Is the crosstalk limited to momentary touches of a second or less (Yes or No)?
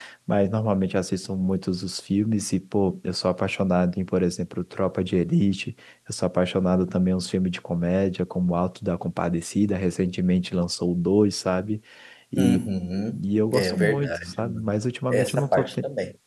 No